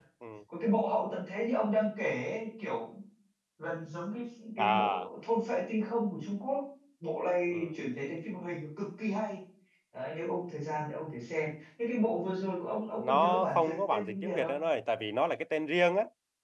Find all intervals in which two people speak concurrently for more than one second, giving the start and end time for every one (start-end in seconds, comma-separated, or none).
13.0-14.6